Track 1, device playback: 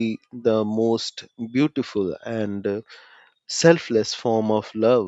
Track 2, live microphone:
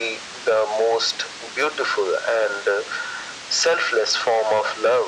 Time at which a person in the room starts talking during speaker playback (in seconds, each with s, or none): none